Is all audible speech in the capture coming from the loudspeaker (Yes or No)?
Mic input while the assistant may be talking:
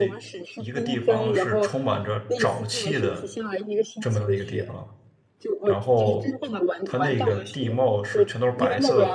No